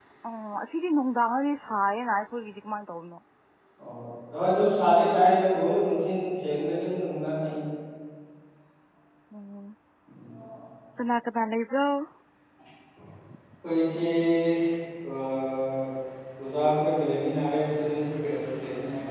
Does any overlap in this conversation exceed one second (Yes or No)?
No